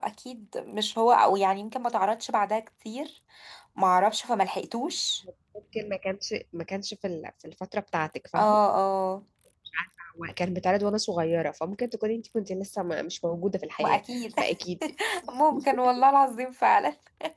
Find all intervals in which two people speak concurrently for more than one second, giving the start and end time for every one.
none

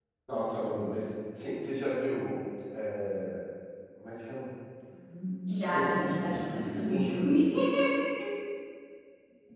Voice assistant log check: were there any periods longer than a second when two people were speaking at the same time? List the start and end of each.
5.7-7.3

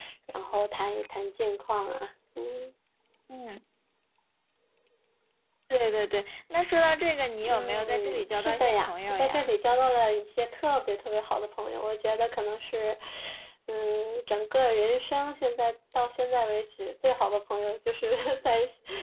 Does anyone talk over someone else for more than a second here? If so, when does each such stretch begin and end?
7.5-9.5

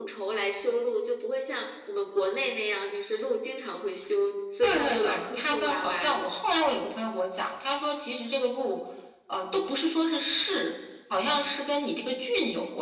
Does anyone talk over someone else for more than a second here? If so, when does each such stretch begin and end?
4.6-6.2

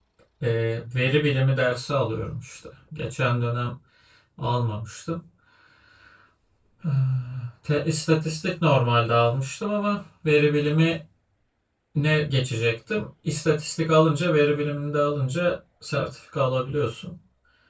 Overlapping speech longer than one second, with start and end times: none

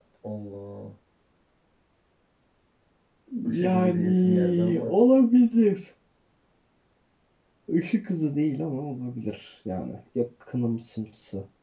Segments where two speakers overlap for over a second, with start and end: 3.6-5.0

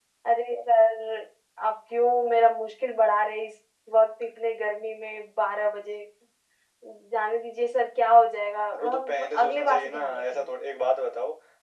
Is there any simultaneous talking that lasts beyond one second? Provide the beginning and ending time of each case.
8.8-10.5

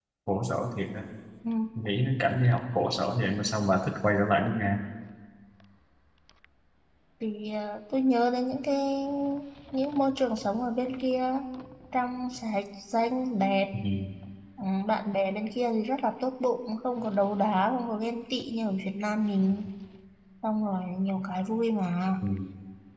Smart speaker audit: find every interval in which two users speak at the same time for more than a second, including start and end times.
none

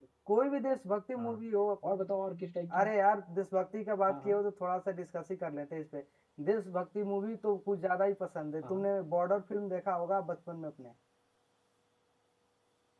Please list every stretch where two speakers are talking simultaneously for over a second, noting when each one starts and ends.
none

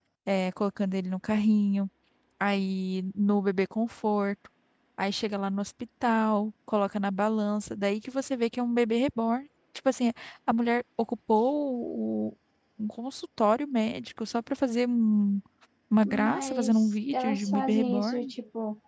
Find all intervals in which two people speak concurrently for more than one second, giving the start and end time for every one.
16.0-18.3

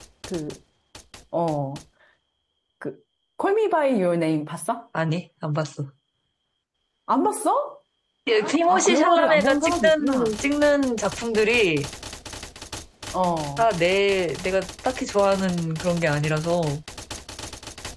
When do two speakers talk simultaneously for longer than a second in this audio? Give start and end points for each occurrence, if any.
8.7-10.3

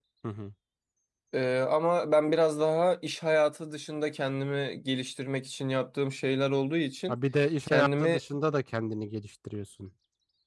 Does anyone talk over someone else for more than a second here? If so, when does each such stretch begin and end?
none

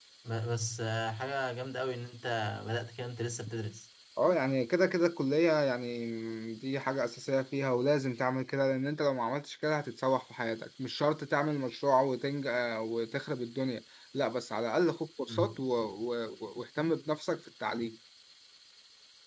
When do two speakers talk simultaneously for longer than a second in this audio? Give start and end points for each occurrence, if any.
none

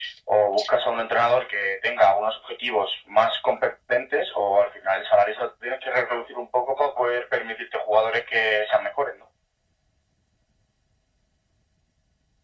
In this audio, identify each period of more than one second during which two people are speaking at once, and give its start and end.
none

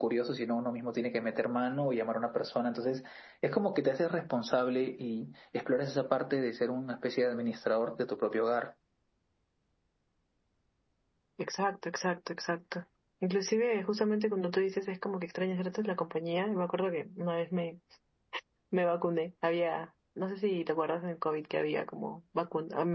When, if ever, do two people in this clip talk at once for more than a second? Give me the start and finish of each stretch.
none

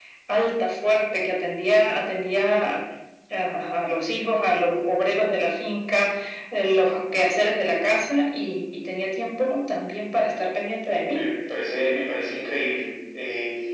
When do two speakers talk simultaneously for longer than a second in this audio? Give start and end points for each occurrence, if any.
none

